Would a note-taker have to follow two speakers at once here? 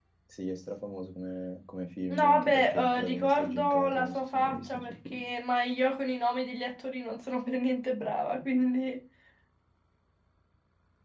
Yes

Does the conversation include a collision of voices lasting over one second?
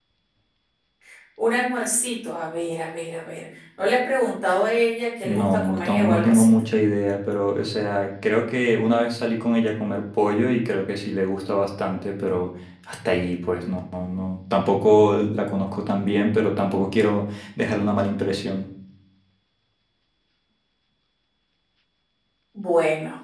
Yes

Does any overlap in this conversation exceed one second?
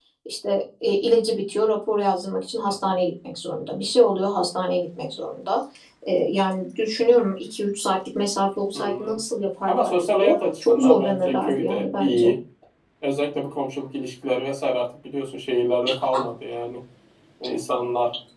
Yes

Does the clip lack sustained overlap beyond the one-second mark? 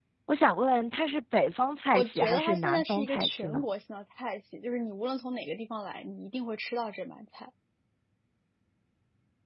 No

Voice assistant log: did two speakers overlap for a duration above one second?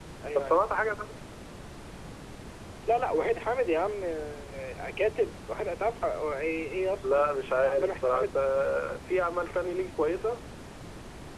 Yes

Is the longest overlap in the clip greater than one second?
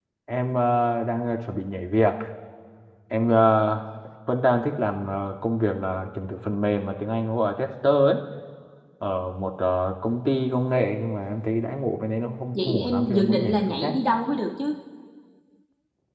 Yes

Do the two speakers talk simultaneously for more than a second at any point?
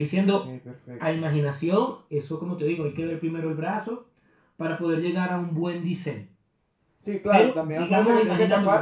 Yes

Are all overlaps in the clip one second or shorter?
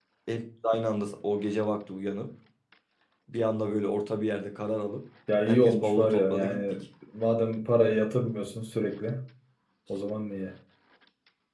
No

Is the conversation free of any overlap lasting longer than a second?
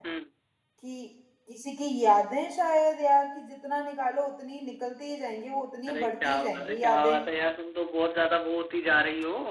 No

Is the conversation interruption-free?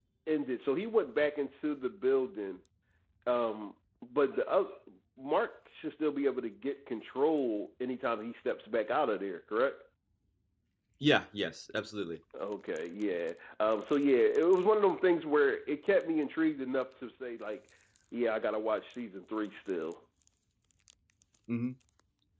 Yes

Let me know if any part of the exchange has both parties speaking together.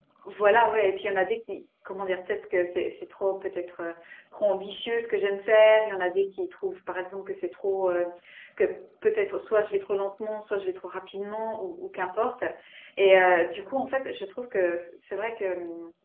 No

